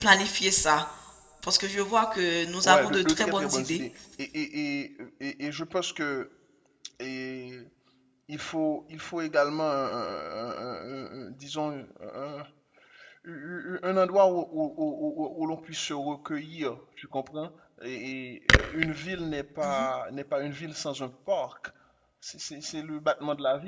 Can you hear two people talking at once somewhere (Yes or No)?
Yes